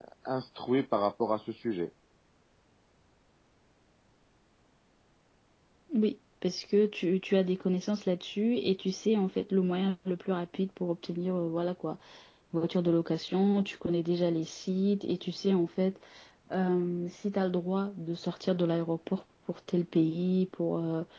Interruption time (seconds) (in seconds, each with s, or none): none